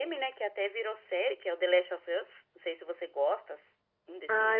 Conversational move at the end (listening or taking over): taking over